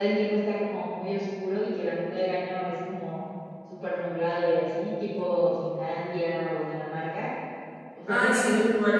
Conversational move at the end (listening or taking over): taking over